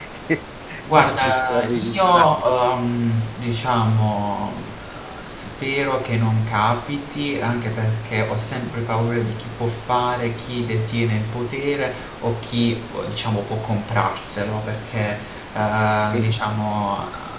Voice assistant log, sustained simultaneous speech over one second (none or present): present